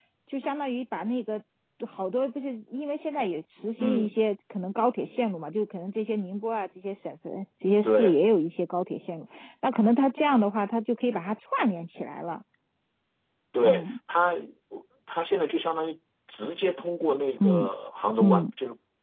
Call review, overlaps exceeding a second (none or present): none